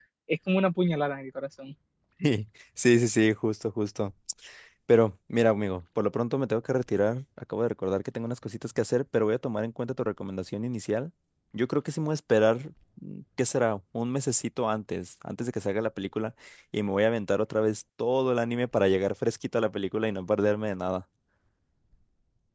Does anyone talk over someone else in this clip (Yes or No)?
No